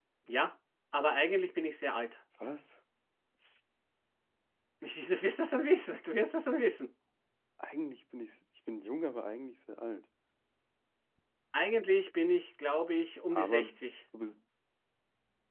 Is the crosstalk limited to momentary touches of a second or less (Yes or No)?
Yes